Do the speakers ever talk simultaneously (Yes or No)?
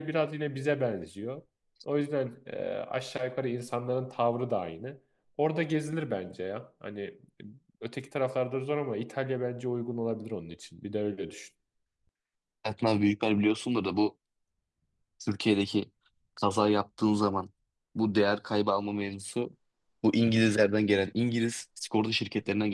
No